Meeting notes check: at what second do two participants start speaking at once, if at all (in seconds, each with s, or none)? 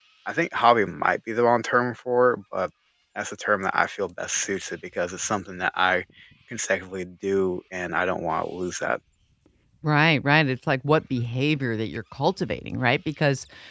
none